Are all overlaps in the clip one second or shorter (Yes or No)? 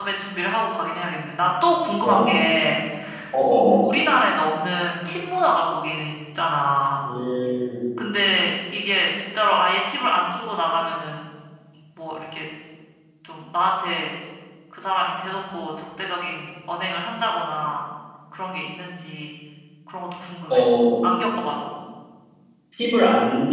Yes